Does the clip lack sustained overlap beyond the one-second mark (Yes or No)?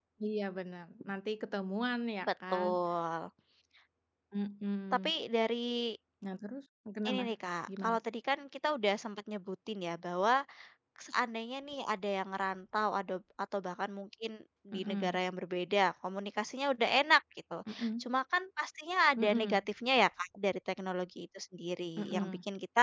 Yes